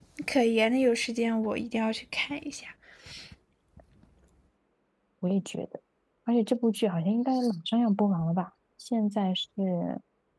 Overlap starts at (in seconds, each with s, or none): none